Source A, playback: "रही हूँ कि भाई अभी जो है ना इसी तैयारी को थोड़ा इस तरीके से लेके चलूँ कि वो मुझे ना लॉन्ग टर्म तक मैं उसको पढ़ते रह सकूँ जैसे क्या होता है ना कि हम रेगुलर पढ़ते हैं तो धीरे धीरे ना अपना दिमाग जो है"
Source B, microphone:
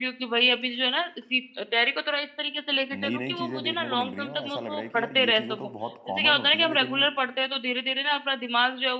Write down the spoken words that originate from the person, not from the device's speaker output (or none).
नई नई चीज़ें देखने को मिल रही हैं और ऐसा लग रहा है कि यार ये चीज़ें तो बहुत कॉमन होती हैं लेकिन